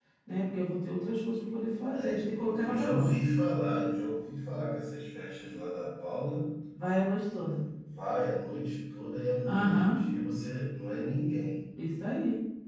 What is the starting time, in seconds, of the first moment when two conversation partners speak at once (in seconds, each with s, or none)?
1.9 s